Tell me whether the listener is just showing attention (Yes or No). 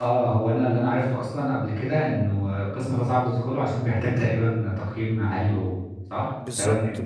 No